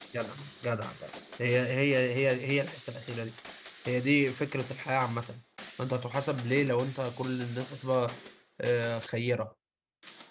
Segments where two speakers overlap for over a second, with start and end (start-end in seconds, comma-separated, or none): none